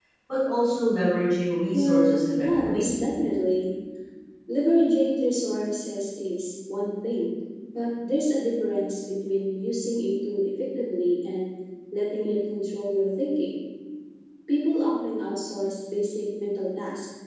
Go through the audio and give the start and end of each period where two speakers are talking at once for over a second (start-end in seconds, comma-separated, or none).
1.7-2.9